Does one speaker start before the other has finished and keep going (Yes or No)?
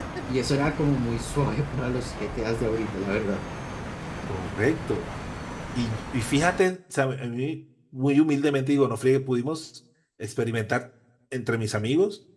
No